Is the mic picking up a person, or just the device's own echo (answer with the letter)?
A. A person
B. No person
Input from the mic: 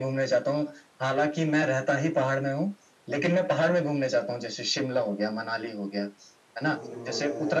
A